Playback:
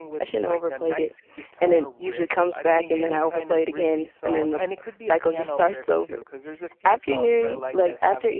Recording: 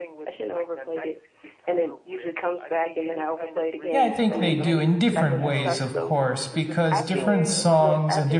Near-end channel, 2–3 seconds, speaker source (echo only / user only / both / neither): echo only